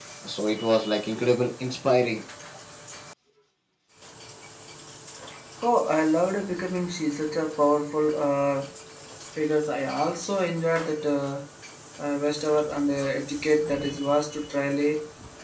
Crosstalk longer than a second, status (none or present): none